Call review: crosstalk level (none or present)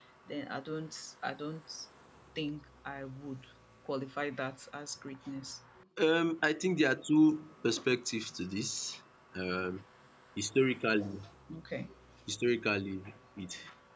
none